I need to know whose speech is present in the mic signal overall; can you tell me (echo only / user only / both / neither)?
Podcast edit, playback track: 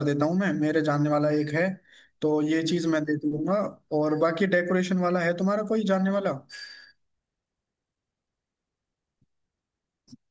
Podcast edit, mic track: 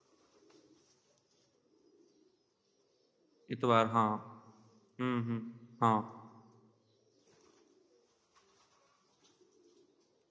user only